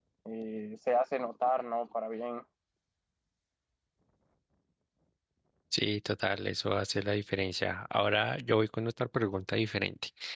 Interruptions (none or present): none